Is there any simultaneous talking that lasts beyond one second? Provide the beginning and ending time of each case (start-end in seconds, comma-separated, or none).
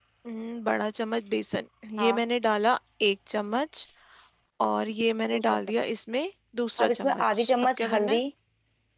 6.8-8.2